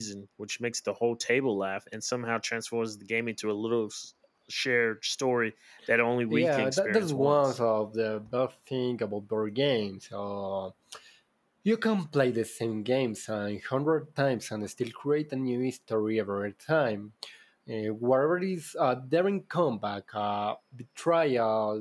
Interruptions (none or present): present